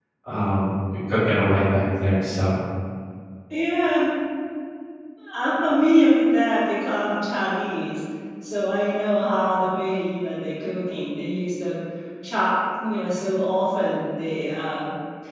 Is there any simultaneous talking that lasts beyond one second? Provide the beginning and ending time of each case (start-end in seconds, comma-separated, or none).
none